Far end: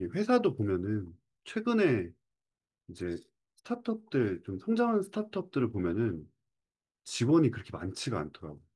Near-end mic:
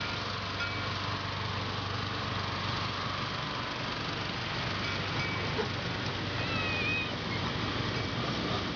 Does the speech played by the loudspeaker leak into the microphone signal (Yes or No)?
No